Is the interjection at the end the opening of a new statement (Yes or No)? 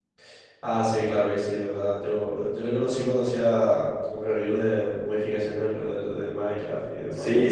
Yes